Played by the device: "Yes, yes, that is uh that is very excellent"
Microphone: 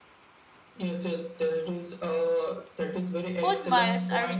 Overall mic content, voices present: both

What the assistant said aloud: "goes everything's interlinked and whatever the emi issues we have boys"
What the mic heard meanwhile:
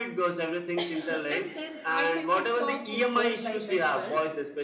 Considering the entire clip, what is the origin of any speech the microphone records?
both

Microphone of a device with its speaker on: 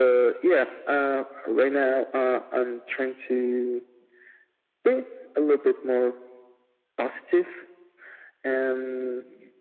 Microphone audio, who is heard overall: echo only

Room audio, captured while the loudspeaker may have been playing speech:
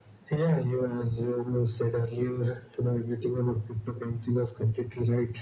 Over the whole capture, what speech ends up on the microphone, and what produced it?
echo only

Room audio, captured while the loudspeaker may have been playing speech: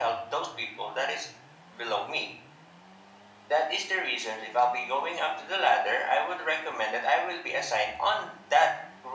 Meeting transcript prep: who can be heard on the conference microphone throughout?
echo only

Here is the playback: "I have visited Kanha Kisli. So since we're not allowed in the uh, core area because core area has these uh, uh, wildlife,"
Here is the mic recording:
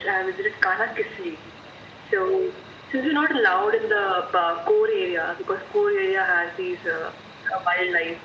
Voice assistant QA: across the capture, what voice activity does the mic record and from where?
echo only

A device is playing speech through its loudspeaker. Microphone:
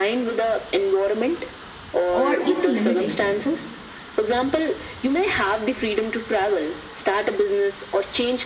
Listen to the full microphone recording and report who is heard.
both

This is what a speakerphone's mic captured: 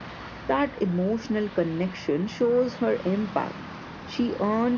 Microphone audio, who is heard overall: echo only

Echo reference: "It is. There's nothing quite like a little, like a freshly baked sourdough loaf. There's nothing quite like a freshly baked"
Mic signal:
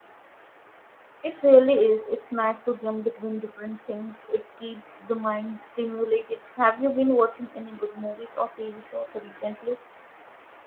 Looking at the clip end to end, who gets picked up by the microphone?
user only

